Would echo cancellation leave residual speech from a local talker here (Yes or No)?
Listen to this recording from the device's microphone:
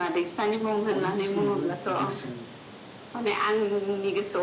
Yes